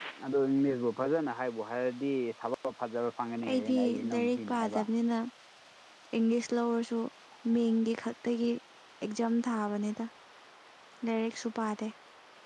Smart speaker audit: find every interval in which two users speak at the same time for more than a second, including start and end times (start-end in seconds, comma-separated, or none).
3.5-4.8